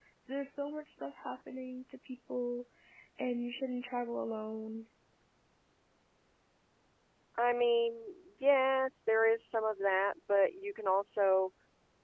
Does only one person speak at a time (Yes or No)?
Yes